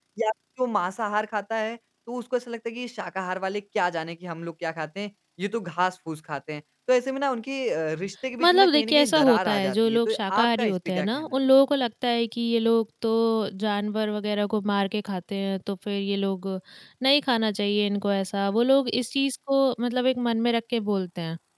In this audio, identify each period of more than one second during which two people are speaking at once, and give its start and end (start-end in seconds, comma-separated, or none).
8.4-11.3